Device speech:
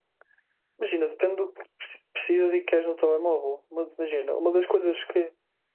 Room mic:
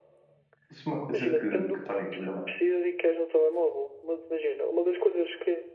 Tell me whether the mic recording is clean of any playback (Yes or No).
No